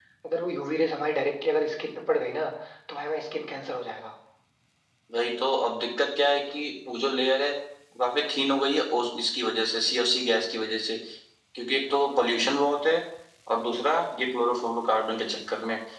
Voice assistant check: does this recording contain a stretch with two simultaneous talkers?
No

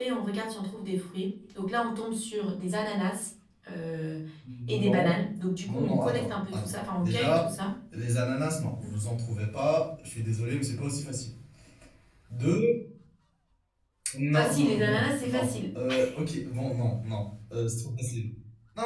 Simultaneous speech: Yes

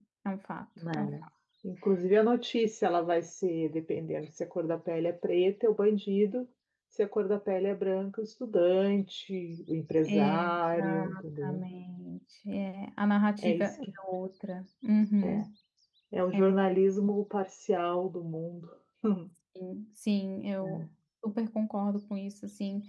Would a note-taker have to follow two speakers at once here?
Yes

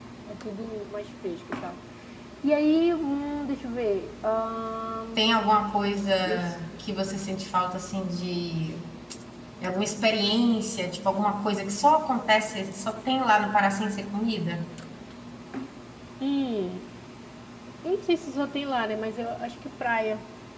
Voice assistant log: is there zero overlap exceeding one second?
Yes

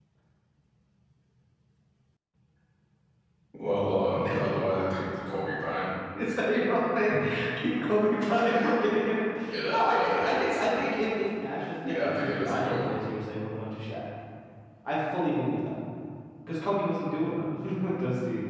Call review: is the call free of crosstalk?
No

